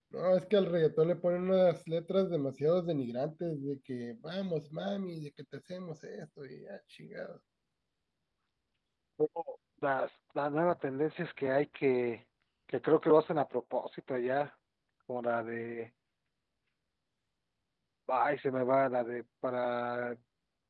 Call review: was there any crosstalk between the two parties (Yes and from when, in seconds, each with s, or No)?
No